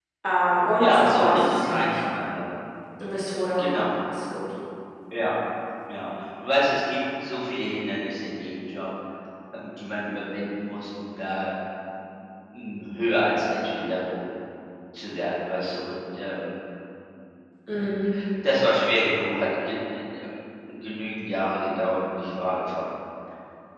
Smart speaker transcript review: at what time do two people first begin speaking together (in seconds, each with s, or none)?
0.8 s